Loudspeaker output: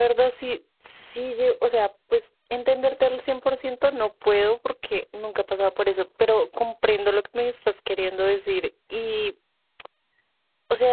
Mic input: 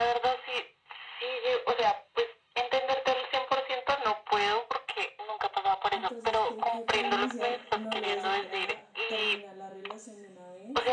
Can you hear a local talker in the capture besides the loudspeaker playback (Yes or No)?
Yes